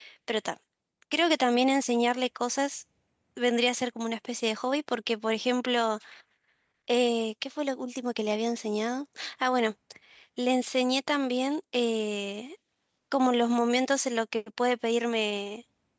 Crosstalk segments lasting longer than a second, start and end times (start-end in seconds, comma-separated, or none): none